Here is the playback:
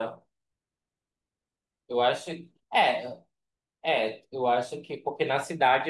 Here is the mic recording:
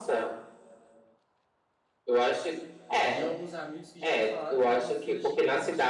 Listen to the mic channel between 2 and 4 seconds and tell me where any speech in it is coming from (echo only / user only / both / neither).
both